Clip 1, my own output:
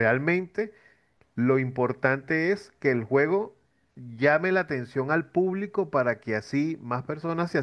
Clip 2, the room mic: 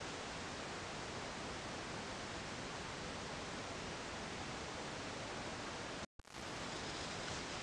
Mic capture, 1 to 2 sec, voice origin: neither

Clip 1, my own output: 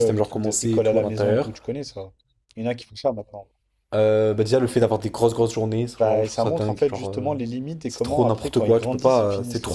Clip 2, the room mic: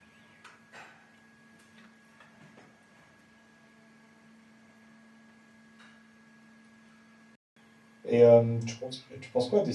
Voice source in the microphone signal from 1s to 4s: neither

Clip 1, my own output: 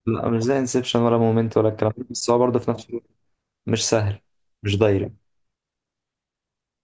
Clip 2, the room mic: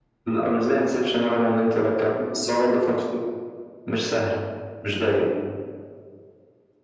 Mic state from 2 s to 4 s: echo only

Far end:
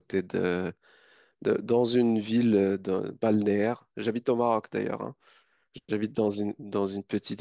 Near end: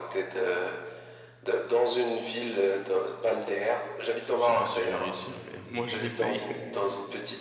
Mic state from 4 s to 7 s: both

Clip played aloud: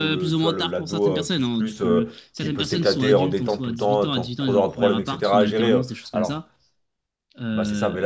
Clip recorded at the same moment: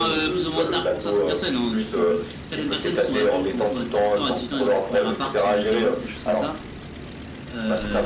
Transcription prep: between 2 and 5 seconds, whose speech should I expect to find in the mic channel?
echo only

